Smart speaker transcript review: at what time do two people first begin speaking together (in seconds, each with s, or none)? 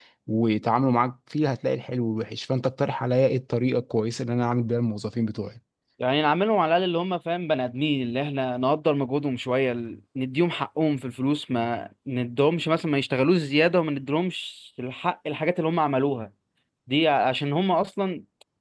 none